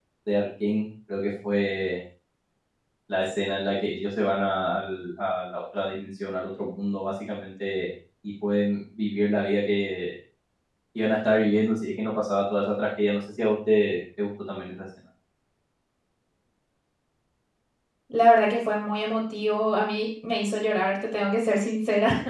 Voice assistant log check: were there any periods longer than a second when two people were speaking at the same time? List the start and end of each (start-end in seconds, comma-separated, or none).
none